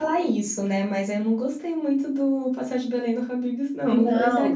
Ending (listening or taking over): taking over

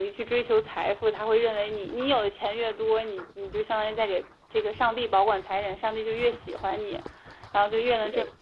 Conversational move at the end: listening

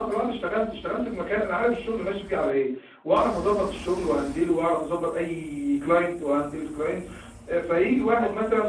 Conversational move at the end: listening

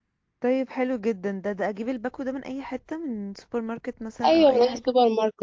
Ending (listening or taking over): taking over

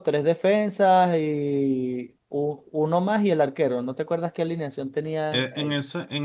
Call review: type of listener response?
taking over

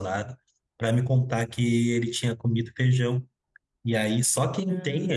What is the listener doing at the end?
listening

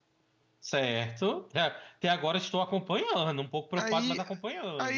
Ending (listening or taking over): taking over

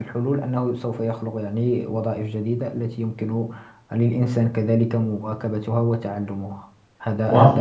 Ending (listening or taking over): taking over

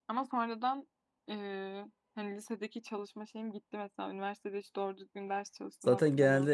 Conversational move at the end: taking over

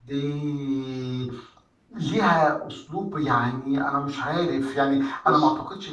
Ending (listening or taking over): listening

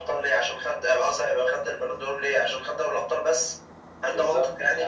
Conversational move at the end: taking over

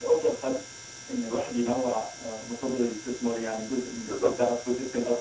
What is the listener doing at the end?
listening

